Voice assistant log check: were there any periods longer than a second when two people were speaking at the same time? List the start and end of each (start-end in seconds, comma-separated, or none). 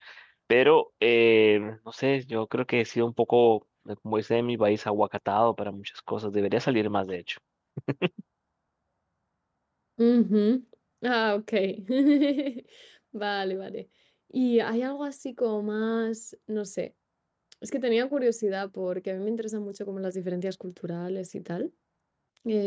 none